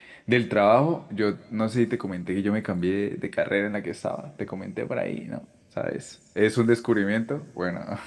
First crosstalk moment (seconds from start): none

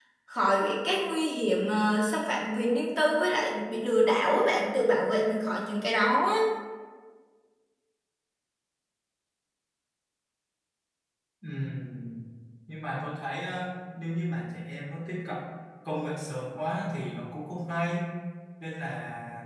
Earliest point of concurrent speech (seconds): none

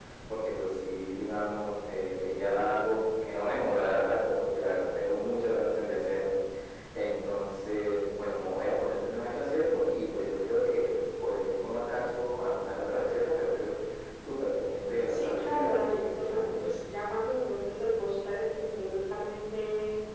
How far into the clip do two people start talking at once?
15.1 s

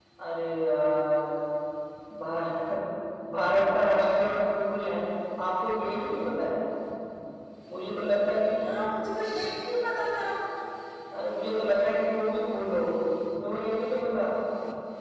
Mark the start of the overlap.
none

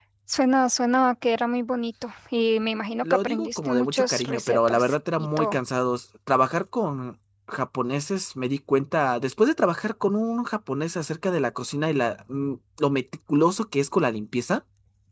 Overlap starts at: 3.0 s

